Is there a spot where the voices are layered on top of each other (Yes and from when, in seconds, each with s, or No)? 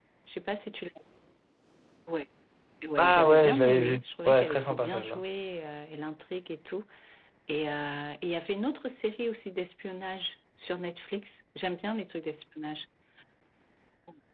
Yes, from 3.0 s